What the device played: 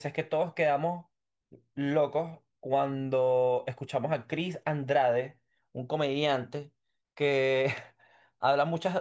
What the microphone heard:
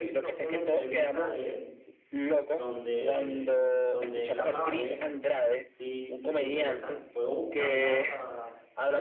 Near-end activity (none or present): present